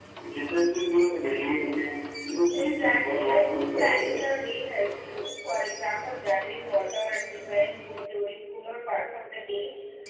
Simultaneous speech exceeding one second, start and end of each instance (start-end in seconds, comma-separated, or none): 2.5-4.3